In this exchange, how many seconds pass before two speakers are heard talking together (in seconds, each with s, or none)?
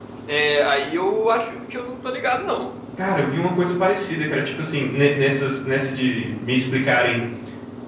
none